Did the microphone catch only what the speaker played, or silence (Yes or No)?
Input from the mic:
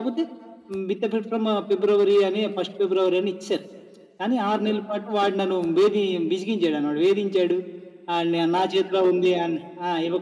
Yes